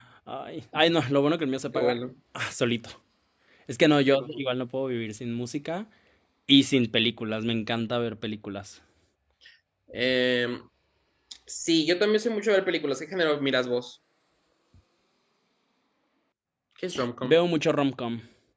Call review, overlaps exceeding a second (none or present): none